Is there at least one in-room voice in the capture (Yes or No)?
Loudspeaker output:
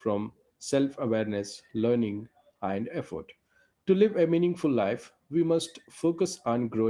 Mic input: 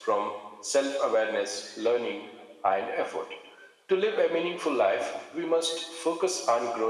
No